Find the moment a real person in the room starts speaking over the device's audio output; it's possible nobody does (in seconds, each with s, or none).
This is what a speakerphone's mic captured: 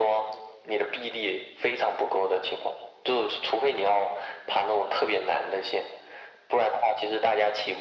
none